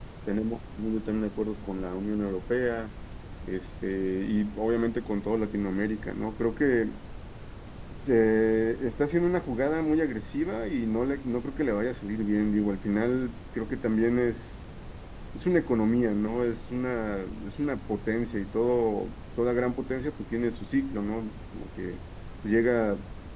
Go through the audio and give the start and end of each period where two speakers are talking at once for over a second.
none

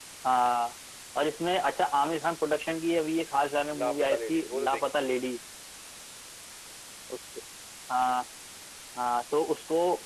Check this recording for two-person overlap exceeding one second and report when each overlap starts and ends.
3.7-5.3

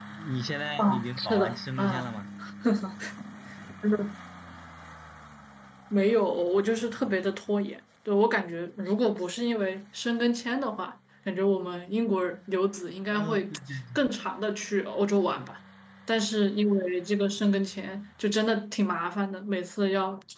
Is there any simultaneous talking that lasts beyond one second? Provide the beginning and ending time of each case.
0.8-2.1

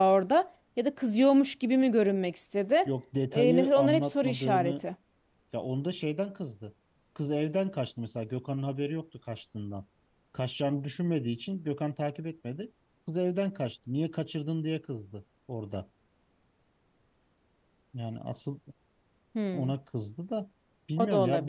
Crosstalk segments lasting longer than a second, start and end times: 3.3-4.8

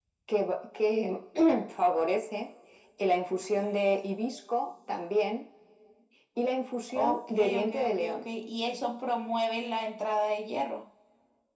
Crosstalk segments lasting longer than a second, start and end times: 6.9-8.3

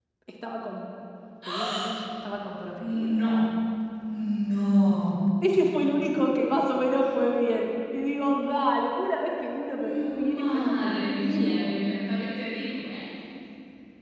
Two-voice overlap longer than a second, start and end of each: 9.8-11.8

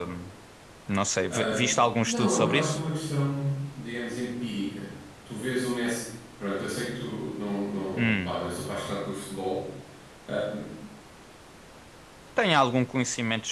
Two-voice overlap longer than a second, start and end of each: 1.3-2.8

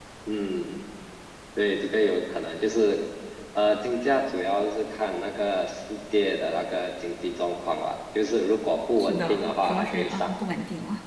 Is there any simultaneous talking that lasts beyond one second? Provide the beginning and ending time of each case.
9.0-10.3

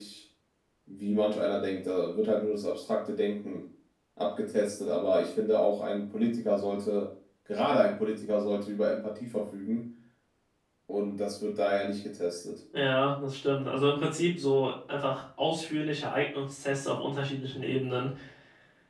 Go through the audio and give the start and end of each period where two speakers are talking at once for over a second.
none

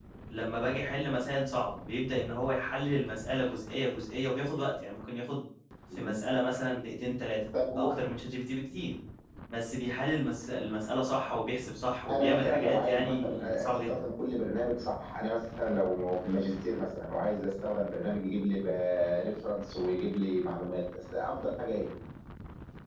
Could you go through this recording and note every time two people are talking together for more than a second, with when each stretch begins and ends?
12.1-14.0

